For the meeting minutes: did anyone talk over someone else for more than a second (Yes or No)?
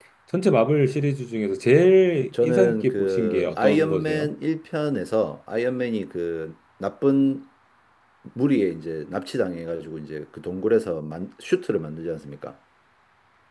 Yes